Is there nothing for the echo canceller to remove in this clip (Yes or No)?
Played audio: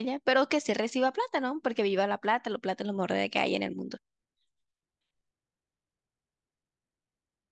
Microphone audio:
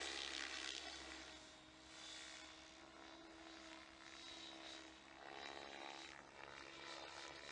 Yes